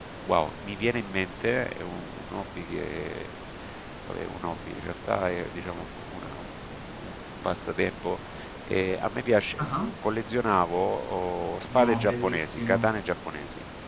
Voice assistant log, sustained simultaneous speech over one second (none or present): present